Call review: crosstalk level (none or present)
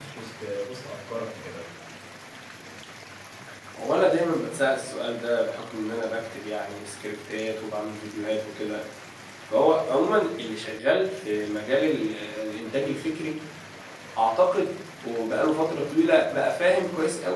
none